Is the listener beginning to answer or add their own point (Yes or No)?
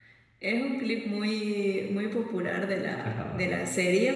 No